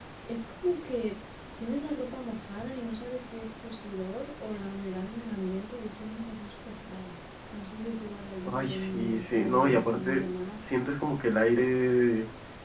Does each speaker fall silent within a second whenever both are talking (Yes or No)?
No